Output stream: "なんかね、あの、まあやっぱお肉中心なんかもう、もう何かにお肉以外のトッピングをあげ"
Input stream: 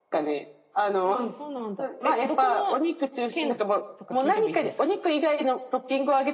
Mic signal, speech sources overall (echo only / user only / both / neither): both